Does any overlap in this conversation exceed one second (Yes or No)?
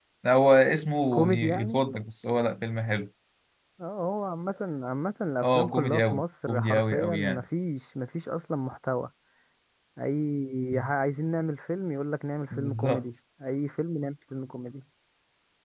Yes